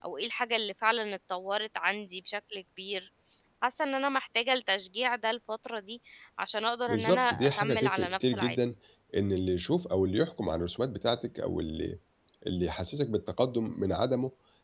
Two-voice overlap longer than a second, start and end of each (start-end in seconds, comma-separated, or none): 6.9-8.6